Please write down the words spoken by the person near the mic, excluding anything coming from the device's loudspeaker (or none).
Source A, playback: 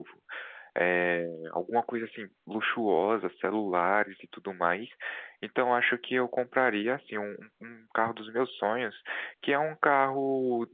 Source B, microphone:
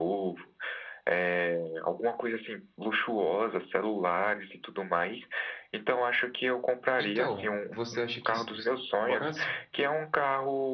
Então, você acha que. se- se- Bora sim,